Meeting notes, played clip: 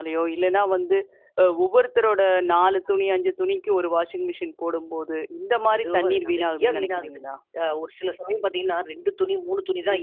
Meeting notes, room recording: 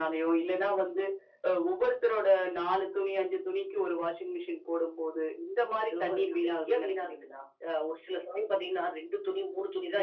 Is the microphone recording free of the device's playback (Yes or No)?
No